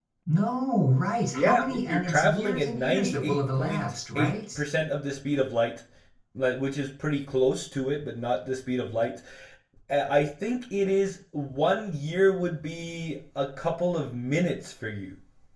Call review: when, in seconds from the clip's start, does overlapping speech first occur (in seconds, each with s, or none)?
1.3 s